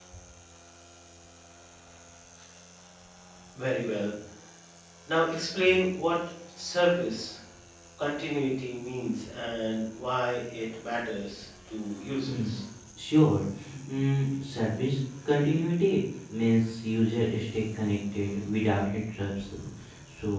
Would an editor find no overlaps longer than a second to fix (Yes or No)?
Yes